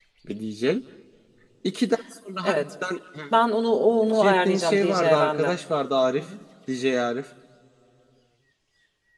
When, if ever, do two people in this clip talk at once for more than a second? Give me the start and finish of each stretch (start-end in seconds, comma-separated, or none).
4.2-5.5